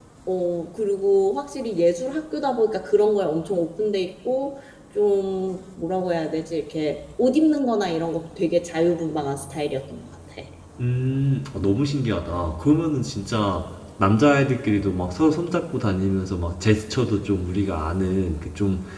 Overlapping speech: No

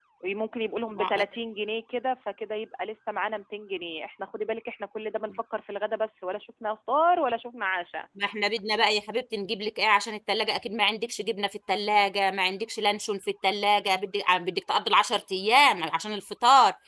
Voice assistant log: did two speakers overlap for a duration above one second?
No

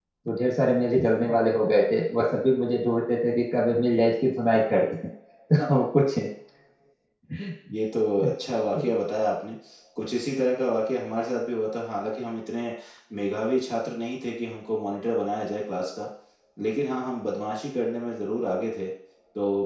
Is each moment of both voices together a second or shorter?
Yes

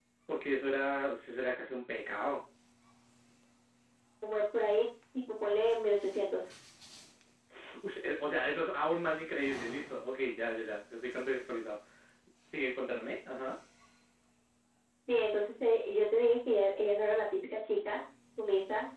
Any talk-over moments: No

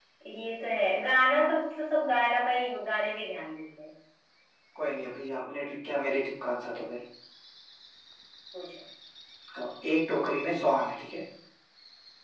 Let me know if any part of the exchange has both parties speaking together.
No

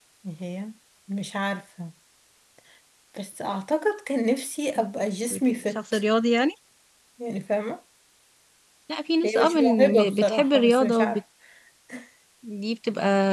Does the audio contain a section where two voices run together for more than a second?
Yes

